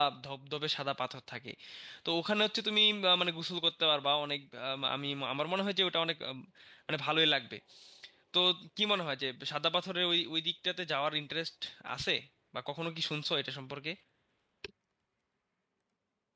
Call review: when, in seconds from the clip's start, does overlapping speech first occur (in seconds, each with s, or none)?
none